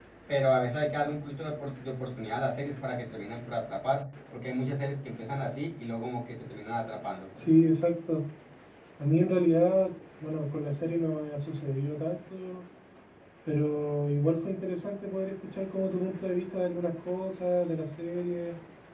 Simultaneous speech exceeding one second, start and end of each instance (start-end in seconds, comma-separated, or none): none